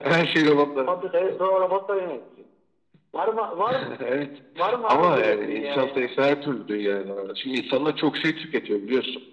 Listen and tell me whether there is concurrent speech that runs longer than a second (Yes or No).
Yes